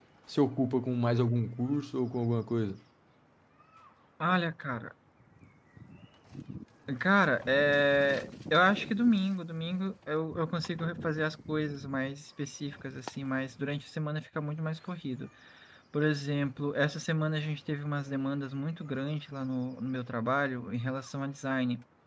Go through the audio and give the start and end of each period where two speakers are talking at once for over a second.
none

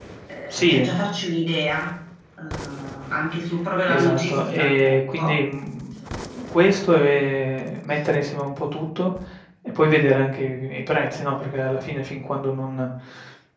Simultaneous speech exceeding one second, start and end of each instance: 3.9-5.4

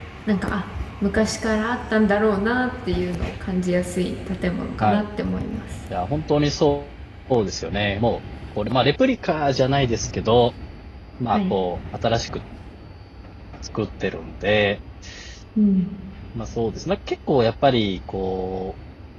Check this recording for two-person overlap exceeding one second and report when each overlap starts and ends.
none

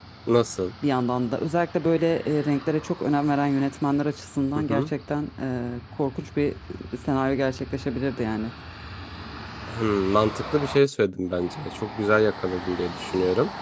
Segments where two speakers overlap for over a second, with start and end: none

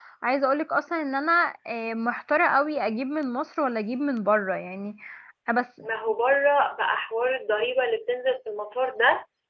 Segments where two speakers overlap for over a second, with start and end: none

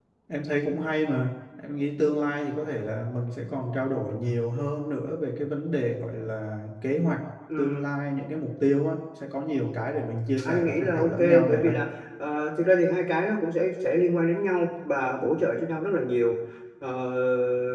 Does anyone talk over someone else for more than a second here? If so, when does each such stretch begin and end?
10.4-11.8

